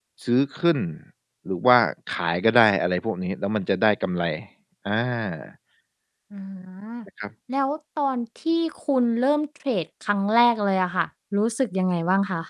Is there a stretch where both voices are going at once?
No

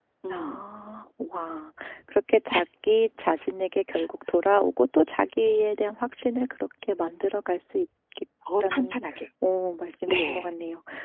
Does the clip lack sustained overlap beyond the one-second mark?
Yes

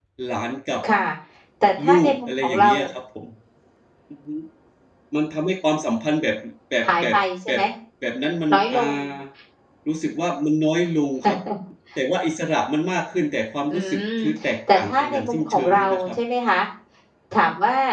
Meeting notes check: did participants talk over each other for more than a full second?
Yes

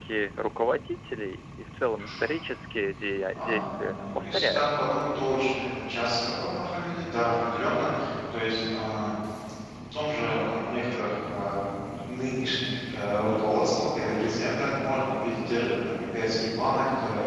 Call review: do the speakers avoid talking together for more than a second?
No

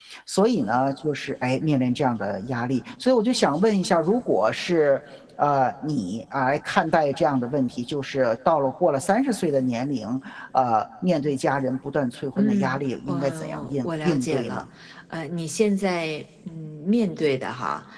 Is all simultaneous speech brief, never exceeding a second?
No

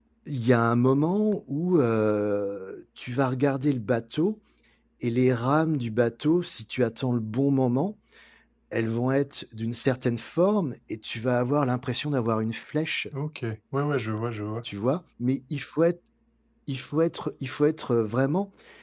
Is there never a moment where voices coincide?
Yes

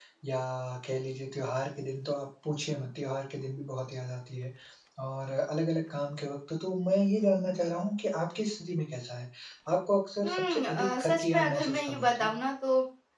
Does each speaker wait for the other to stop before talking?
No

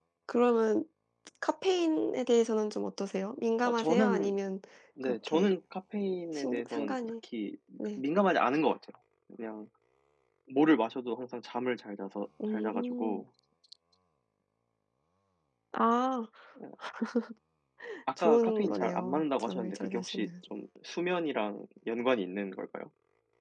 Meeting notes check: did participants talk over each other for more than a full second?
Yes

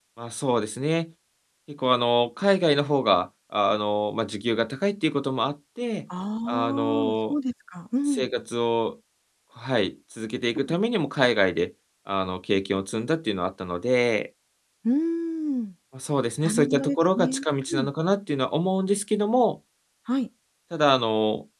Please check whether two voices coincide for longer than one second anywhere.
Yes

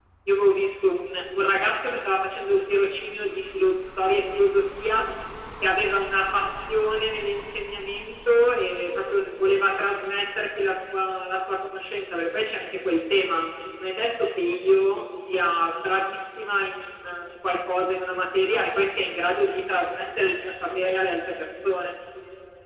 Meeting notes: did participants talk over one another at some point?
No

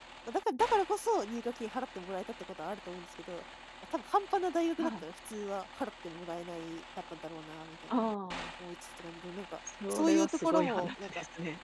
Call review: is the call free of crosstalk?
No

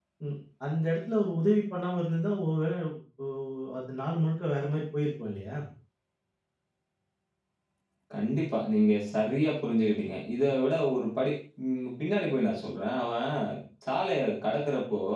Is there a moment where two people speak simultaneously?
No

